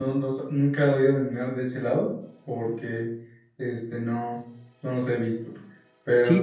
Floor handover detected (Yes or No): Yes